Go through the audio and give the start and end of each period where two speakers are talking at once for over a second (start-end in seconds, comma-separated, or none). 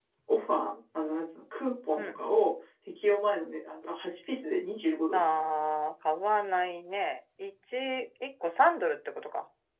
none